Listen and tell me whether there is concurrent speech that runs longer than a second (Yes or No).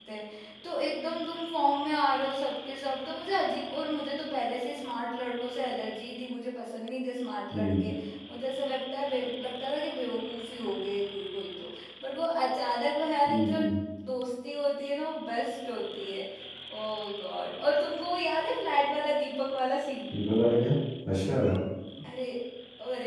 No